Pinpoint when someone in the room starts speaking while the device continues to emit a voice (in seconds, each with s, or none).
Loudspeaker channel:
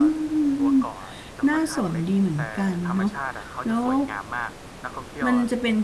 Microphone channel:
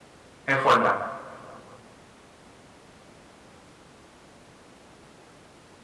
0.5 s